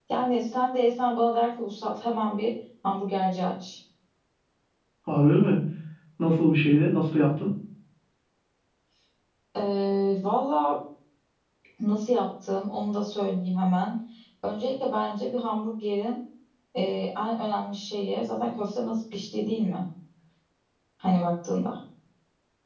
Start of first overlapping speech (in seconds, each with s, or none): none